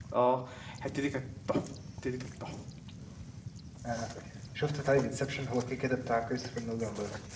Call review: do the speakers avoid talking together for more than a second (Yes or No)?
Yes